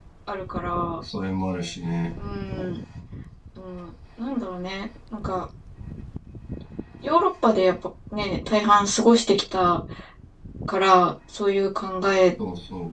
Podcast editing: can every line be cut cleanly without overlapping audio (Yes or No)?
Yes